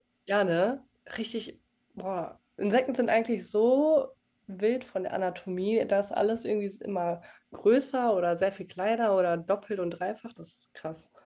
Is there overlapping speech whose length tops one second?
No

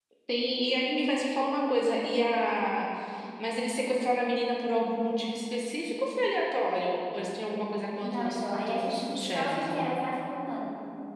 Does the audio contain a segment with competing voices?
Yes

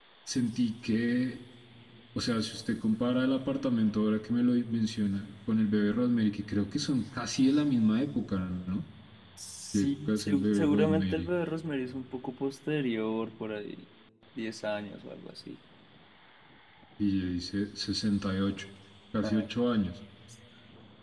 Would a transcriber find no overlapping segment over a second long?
No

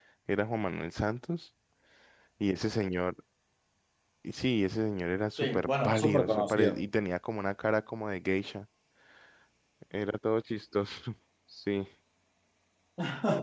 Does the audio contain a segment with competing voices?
Yes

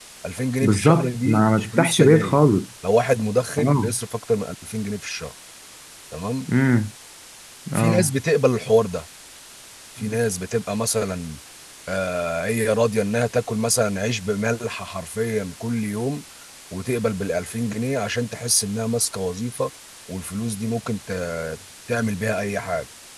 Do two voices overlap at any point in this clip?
Yes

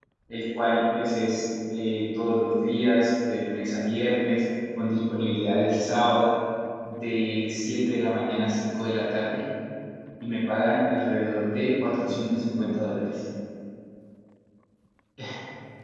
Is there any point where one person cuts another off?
No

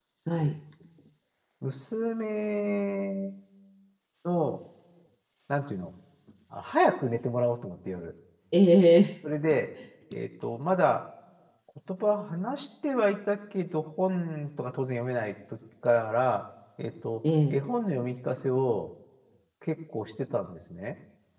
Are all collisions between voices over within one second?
Yes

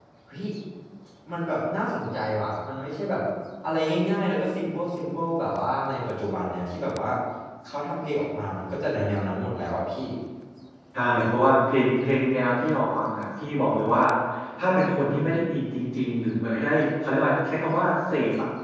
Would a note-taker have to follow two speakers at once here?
No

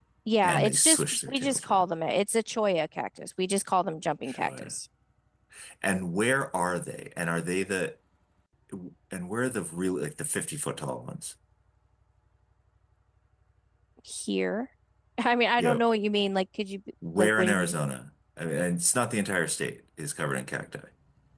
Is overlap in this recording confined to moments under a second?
No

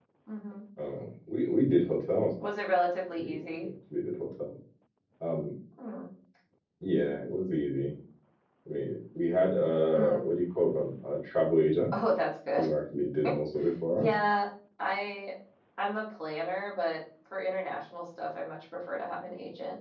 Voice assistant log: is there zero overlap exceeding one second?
Yes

